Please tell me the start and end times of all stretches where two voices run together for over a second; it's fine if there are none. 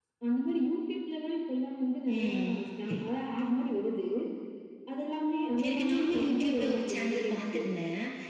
5.6-7.6

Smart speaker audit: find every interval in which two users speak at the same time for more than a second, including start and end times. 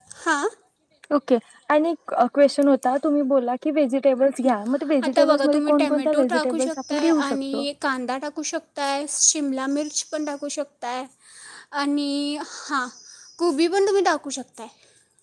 5.1-7.6

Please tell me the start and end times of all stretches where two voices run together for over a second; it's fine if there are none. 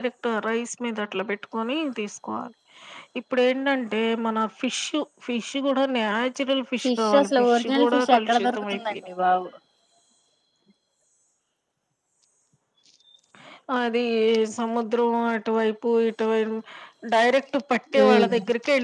6.8-8.9

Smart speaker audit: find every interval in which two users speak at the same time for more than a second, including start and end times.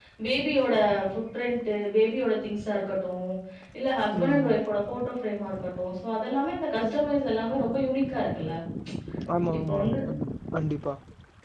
none

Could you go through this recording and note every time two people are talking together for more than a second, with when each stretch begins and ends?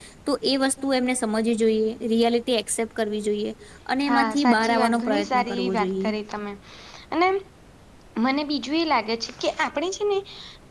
4.1-6.1

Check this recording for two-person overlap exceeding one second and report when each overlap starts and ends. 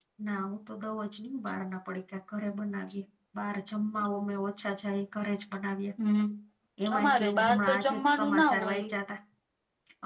7.0-8.8

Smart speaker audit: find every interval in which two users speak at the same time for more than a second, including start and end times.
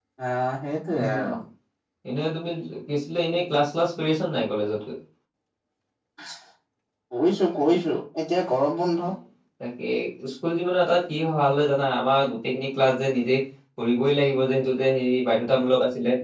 none

